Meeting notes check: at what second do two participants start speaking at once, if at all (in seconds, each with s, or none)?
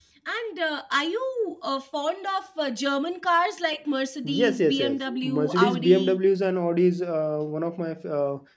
4.2 s